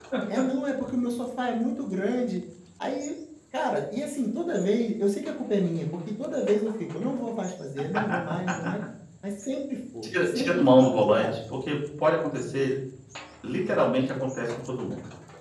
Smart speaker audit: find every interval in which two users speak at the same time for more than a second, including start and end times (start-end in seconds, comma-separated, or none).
10.0-11.3